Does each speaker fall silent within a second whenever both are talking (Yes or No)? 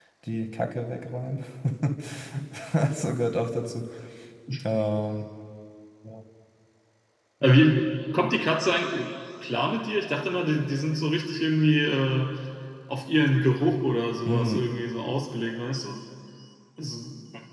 Yes